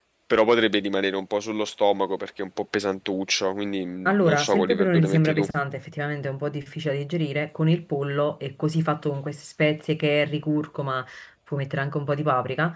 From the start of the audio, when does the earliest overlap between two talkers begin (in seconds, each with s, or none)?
4.0 s